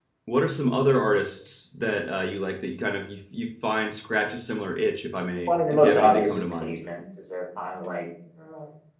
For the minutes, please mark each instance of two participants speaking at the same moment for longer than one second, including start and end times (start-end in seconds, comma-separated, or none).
5.5-6.8